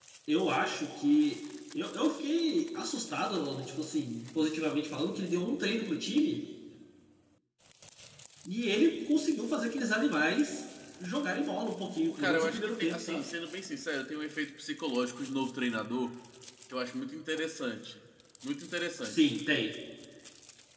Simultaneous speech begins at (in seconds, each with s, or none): 12.1 s